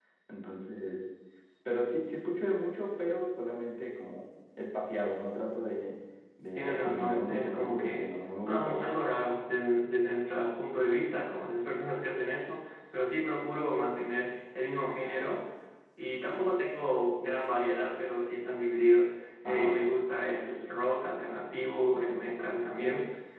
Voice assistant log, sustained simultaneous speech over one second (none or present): present